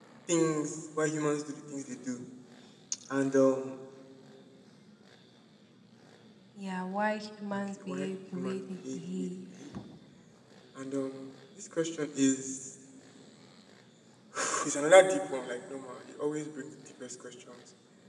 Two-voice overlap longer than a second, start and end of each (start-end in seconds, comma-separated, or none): 7.5-9.3